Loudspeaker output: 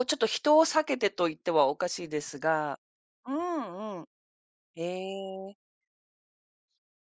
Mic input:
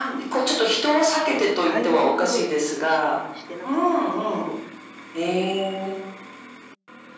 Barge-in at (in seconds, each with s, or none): 1.2 s